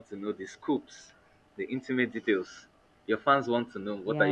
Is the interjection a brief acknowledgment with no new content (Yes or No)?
No